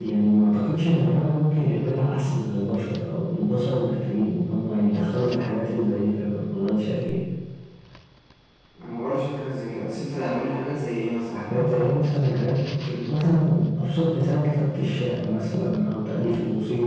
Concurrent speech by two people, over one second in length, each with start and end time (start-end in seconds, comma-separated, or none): none